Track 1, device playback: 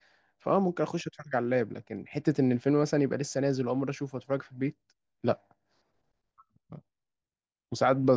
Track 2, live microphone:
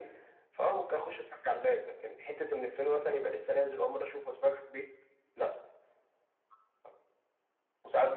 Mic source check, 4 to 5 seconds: echo only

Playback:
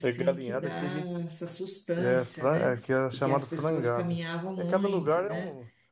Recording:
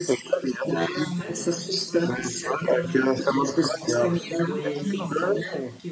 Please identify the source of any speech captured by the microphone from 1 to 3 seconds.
both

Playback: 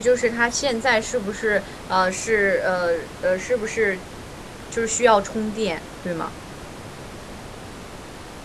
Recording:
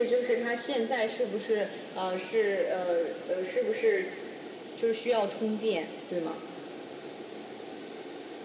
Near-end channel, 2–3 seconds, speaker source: echo only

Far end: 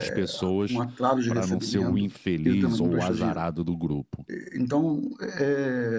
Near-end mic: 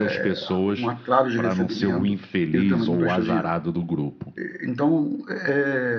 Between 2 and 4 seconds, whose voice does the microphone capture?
echo only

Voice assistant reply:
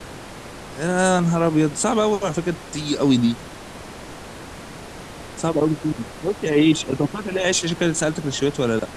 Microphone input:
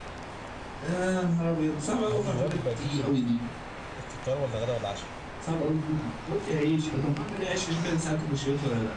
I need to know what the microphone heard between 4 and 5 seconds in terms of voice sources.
user only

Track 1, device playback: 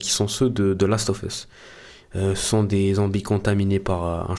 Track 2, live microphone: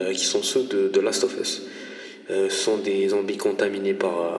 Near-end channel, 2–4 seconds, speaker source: echo only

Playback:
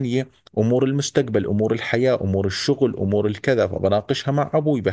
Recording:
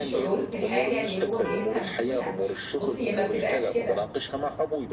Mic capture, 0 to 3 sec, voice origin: both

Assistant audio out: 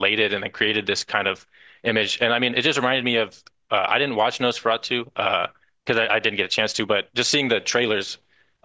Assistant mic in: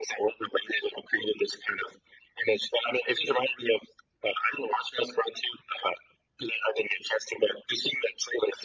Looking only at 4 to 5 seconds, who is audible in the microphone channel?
echo only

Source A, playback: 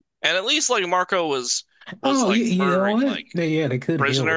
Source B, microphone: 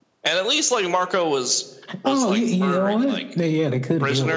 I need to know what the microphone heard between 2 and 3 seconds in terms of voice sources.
echo only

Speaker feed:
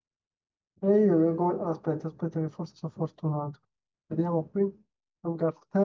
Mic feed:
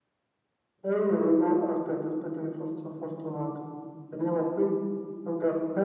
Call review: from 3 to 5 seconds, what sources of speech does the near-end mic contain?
echo only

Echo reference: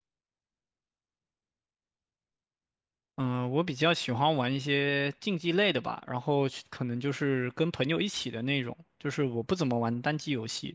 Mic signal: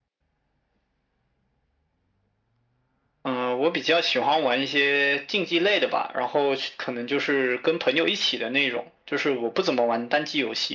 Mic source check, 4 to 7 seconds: echo only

